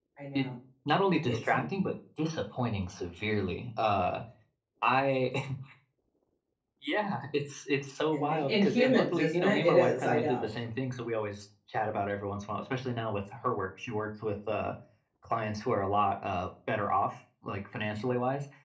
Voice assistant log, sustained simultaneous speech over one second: present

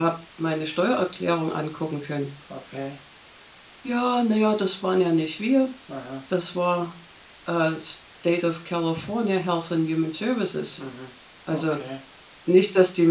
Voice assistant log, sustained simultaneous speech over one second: none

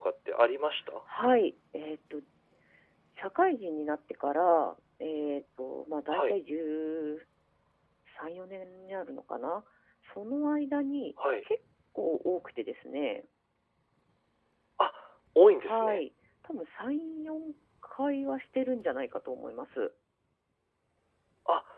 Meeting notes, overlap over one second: none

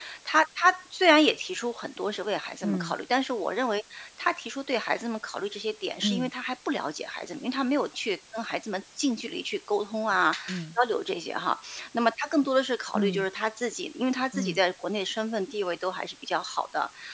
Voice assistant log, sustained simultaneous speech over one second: none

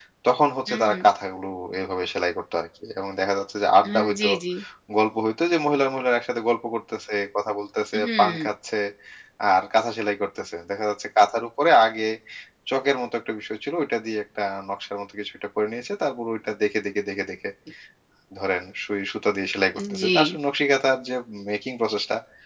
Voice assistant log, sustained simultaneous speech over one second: none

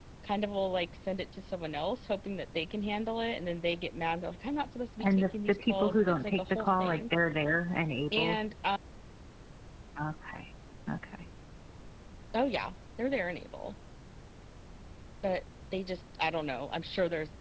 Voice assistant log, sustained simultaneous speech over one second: present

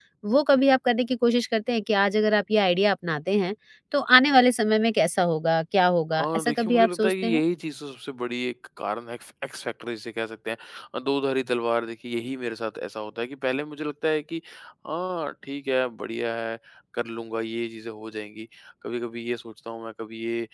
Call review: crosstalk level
present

